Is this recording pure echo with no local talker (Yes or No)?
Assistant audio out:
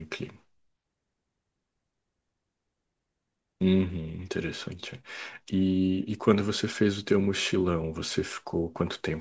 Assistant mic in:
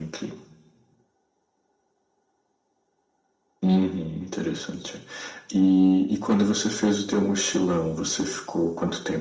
Yes